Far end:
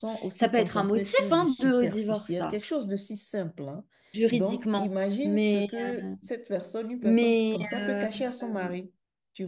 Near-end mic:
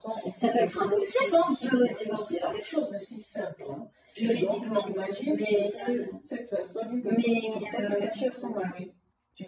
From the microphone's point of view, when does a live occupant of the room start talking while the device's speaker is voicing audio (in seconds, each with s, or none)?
none